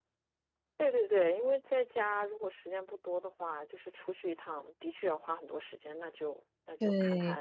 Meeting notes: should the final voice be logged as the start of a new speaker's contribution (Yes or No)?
Yes